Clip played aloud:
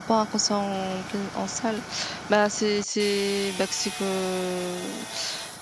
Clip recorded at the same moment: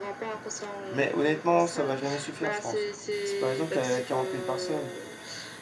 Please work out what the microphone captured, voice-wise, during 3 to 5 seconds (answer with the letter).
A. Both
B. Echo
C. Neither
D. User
A